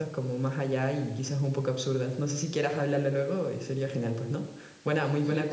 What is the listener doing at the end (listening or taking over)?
taking over